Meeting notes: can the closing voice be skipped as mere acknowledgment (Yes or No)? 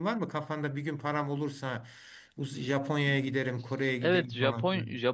No